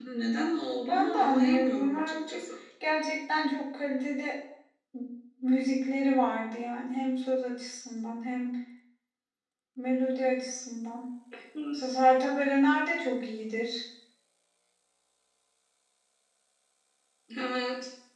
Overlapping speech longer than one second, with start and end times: 0.9-2.4

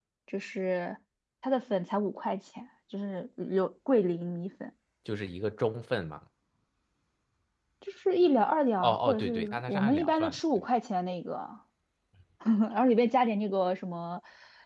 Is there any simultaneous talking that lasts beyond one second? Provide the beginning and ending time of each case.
8.8-10.4

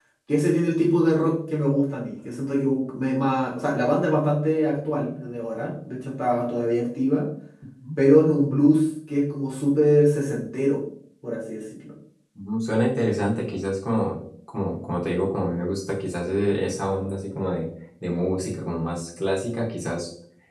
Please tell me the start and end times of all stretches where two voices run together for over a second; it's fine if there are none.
none

